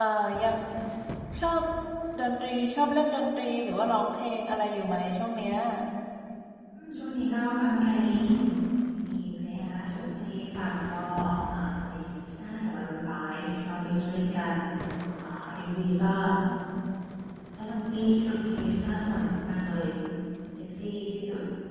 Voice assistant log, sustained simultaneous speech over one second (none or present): none